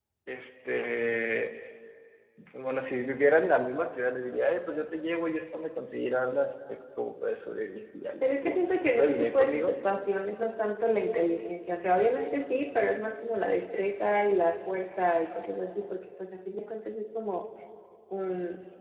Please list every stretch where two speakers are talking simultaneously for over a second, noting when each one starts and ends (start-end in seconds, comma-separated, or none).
8.2-9.7